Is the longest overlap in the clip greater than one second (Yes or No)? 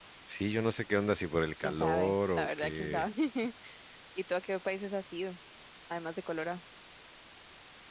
Yes